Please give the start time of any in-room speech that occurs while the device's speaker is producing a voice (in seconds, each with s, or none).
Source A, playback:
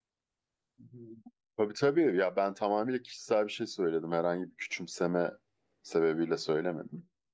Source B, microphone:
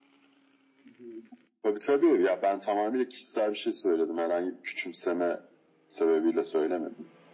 none